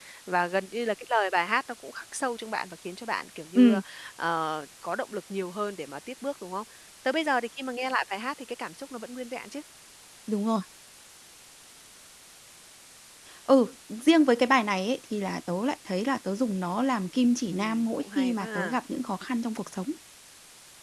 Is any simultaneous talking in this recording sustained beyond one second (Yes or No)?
Yes